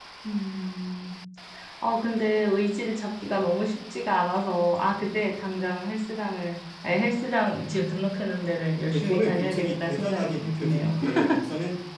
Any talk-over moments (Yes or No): Yes